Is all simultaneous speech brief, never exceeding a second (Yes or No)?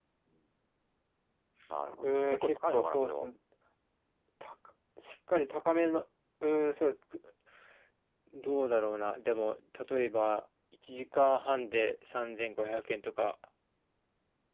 No